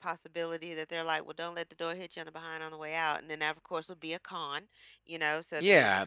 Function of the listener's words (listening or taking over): taking over